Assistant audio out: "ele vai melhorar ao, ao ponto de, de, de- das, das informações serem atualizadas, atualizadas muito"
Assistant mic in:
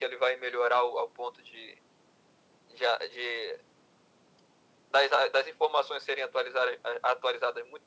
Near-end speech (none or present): none